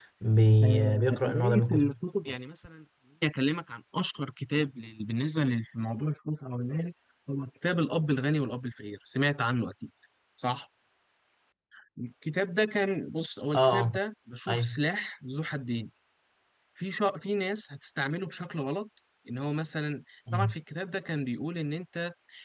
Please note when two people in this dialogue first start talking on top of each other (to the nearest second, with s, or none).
1 s